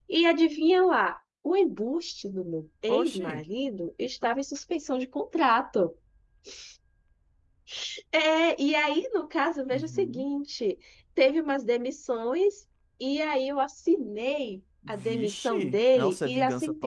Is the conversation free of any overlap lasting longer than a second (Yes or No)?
No